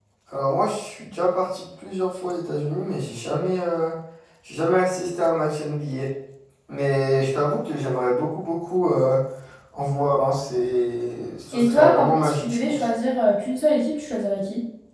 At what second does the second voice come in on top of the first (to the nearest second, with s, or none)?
12 s